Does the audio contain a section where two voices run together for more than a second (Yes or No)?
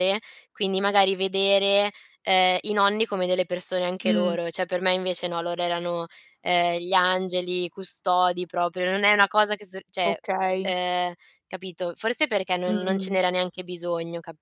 No